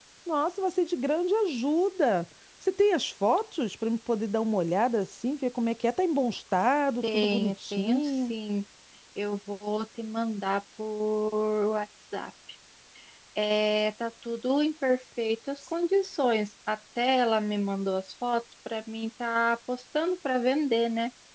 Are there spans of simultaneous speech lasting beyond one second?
Yes, from 7.0 s

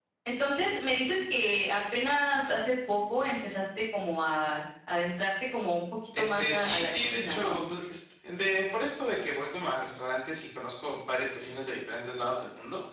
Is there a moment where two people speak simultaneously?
Yes, from 6.1 s

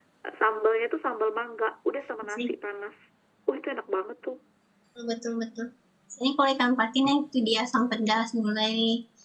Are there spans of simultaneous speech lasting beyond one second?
No

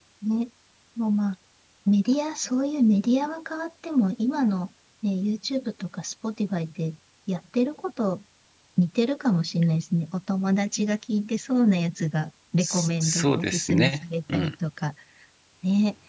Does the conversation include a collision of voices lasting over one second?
Yes, from 12.6 s

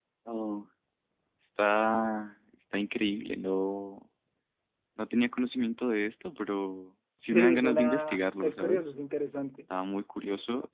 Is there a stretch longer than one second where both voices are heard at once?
Yes, from 7.2 s

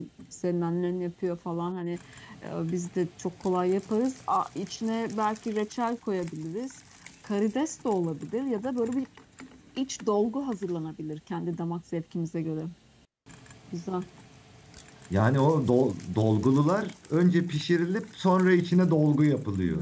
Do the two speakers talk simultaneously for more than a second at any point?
No

